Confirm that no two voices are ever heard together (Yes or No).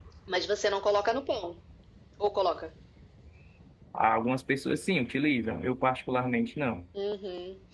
Yes